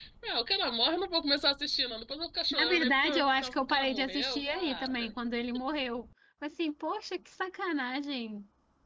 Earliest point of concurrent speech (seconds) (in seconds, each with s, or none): 2.5 s